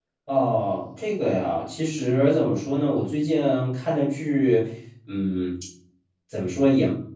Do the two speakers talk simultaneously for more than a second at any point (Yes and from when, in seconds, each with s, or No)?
No